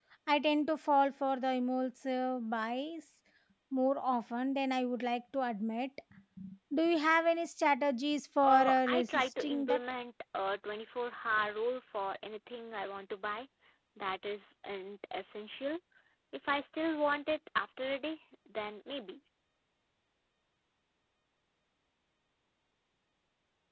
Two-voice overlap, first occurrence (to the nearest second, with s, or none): 8 s